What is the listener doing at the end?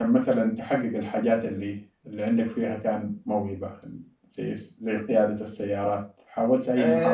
taking over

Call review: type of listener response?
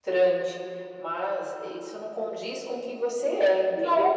listening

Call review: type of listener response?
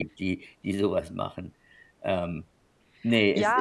taking over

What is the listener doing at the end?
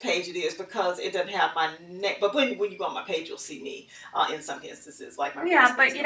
taking over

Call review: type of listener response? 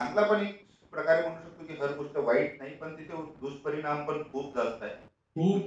taking over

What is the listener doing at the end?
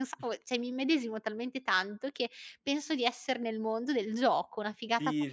taking over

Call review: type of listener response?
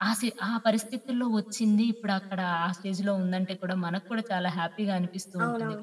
taking over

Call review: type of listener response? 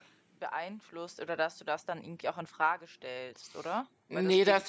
taking over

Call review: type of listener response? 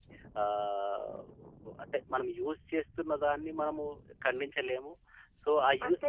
listening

